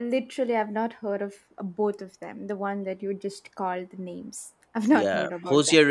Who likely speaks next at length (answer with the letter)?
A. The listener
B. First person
A